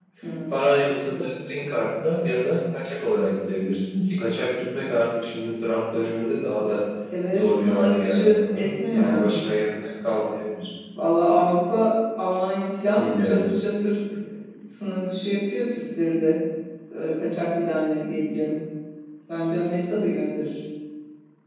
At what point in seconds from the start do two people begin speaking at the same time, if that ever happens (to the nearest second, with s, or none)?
7 s